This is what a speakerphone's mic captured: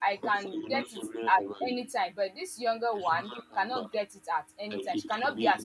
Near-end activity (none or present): present